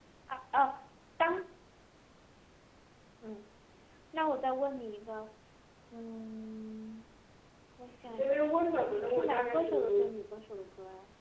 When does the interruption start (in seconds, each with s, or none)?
8.1 s